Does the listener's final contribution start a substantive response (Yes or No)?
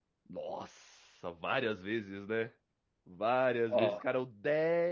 No